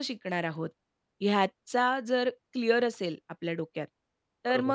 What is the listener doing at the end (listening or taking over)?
listening